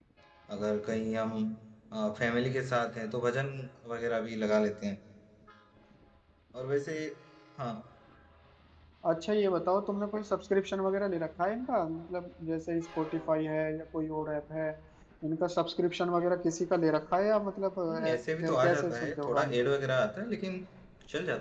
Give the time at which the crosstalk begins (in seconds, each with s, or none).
17.9 s